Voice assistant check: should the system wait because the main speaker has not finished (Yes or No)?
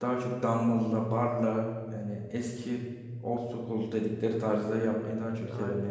Yes